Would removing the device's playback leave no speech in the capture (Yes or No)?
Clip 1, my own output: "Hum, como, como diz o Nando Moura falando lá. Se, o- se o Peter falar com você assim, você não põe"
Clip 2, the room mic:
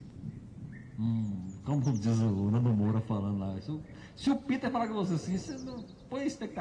Yes